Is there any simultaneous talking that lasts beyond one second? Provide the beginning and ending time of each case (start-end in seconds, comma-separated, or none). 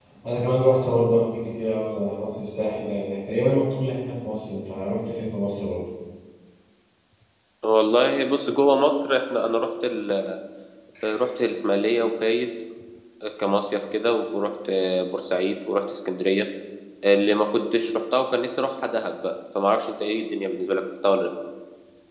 none